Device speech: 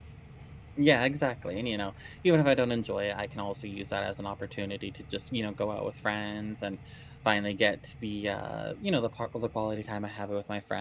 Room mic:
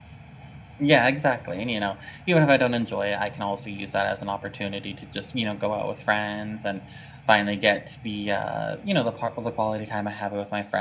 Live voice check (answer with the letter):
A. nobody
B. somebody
A